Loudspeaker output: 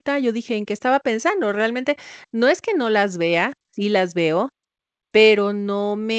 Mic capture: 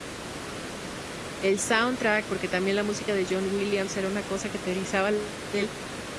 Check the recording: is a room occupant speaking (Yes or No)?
Yes